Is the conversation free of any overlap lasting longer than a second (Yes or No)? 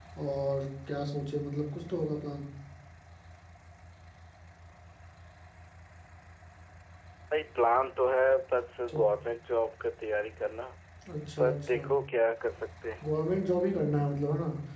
Yes